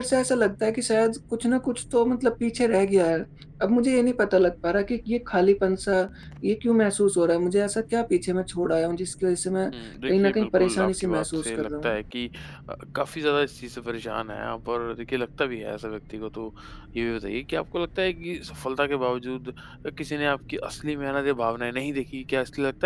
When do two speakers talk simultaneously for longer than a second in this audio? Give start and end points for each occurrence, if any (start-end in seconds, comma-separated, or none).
10.1-11.9